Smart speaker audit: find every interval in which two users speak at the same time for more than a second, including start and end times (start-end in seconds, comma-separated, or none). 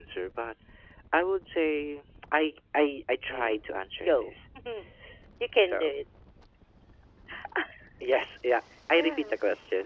none